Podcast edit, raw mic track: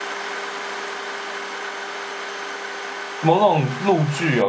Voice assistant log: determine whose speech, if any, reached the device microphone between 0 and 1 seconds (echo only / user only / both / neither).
neither